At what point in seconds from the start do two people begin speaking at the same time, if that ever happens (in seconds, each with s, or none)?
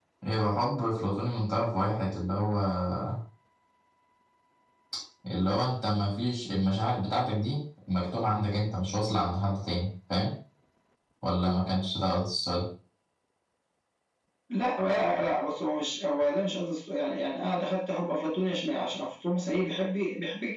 none